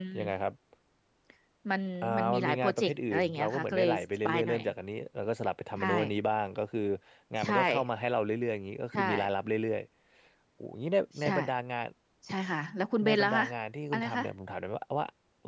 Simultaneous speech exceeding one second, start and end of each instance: 2.0-4.6

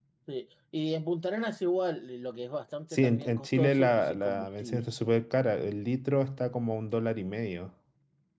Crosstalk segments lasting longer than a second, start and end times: 2.9-4.9

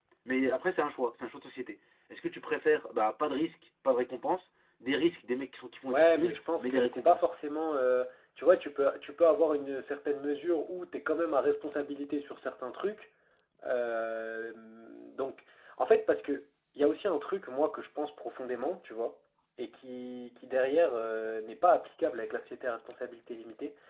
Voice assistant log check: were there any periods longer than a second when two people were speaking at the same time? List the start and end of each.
5.9-7.2

